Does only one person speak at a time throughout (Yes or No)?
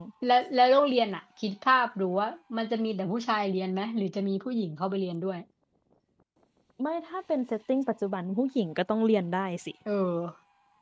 Yes